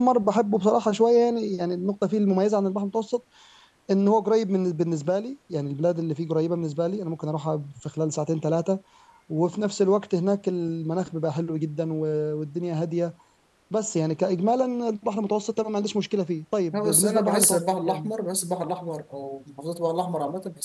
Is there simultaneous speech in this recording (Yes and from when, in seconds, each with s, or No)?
Yes, from 16.7 s